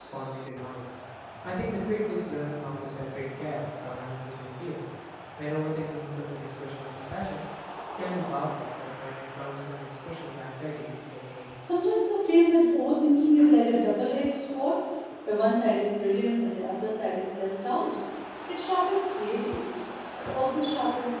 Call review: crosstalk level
none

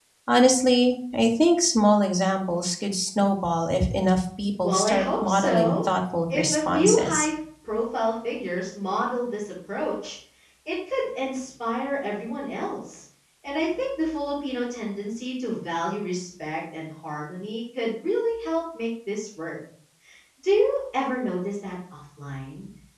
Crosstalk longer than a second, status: present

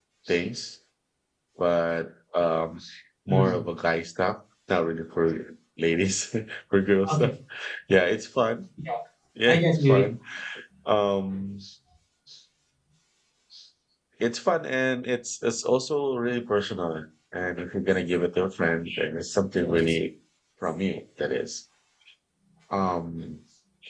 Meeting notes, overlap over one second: none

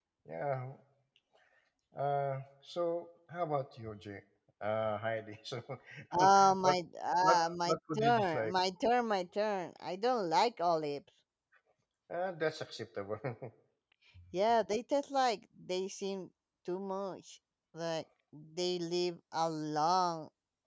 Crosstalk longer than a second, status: present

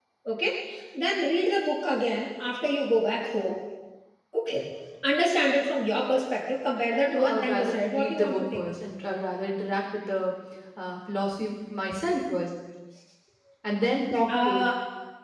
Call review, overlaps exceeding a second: present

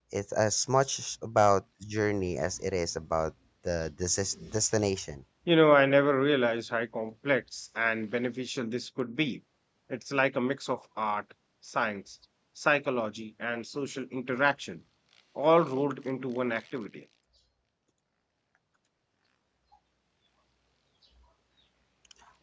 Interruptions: none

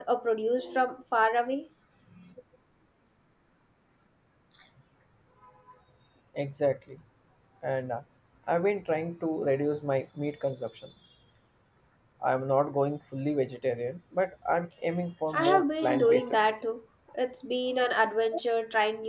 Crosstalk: present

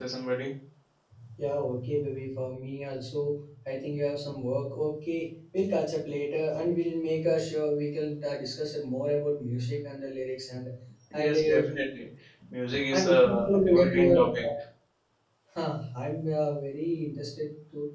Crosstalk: present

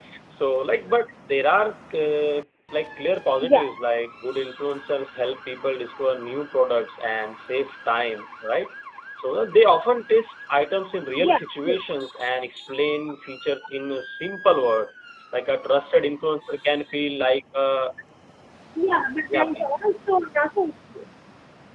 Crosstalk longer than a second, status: none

